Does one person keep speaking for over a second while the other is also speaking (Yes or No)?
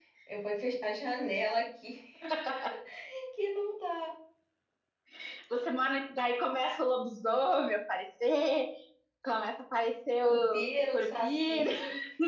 Yes